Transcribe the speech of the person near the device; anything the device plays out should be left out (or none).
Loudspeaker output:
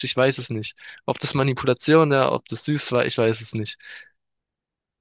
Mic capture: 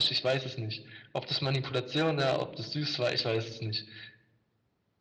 none